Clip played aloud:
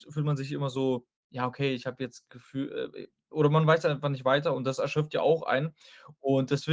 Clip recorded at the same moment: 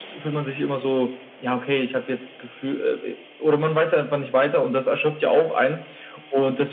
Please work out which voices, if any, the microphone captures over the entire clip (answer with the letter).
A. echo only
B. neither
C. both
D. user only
A